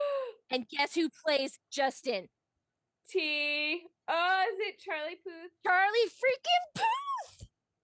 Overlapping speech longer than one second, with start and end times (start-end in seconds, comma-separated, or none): none